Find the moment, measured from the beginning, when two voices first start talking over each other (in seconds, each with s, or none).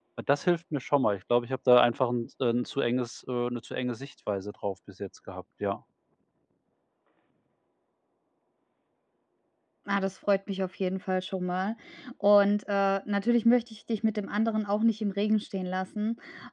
none